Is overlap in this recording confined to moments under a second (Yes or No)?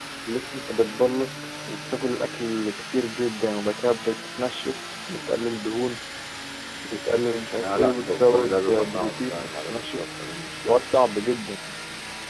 No